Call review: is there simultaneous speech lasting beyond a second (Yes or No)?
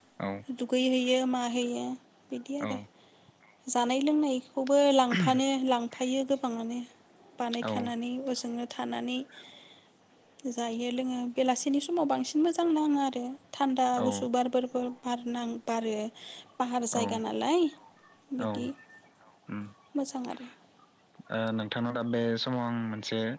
No